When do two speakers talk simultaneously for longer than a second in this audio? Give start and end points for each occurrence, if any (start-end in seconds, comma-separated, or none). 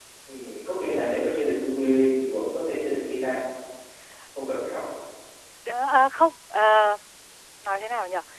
none